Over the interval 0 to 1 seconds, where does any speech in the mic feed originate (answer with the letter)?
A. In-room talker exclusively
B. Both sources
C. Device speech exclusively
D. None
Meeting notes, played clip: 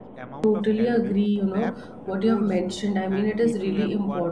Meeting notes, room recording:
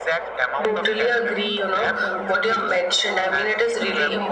B